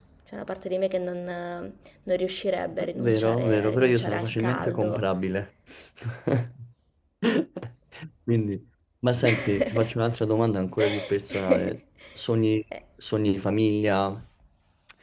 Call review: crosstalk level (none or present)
present